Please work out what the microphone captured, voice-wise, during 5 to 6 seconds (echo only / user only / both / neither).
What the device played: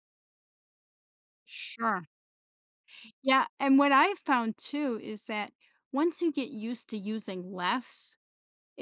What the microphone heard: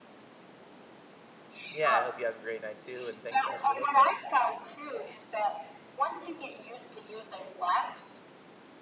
echo only